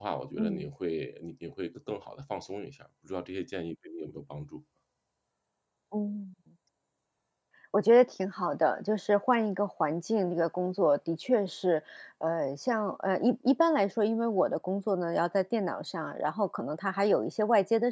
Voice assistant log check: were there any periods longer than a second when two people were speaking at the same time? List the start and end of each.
none

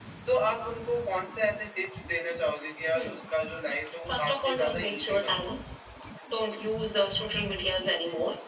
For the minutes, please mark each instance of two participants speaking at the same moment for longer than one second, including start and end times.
4.1-5.5

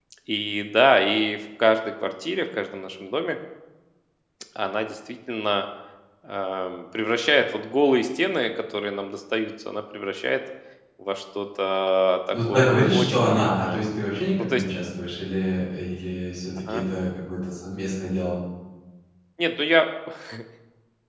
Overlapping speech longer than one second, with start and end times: 12.5-13.8

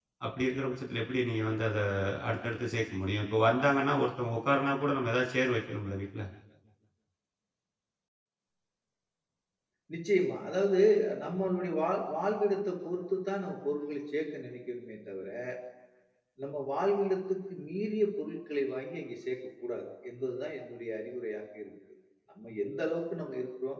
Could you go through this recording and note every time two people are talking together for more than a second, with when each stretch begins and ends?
none

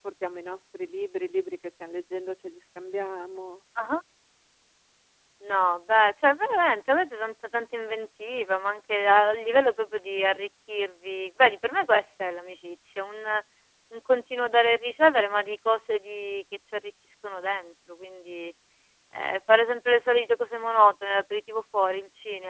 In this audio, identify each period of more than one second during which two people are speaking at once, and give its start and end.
none

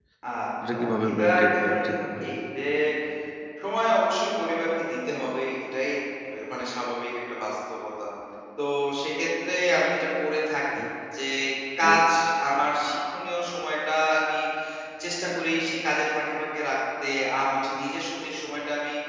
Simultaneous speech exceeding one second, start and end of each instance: 0.7-2.3

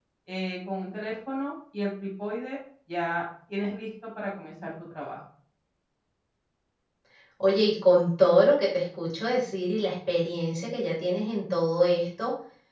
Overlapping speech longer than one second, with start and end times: none

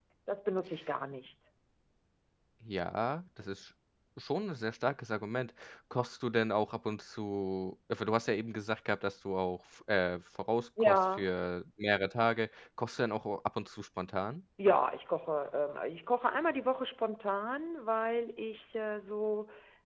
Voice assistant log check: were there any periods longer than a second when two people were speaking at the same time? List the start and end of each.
none

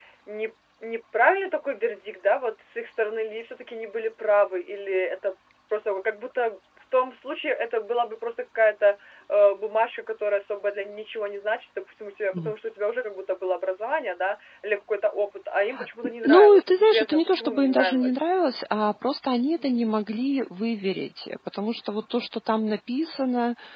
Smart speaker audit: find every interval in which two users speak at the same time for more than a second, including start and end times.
16.2-18.2

